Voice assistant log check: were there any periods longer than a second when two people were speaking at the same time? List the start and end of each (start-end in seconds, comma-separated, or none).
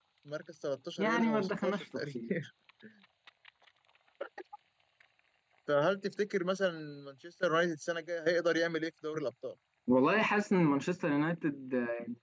1.0-2.2